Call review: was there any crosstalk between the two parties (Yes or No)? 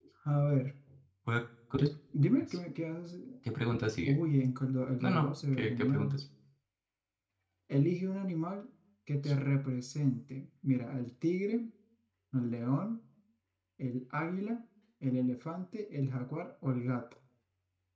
Yes